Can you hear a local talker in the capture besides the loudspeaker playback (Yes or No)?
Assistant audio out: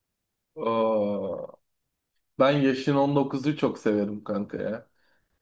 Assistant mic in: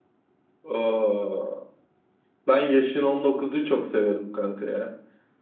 No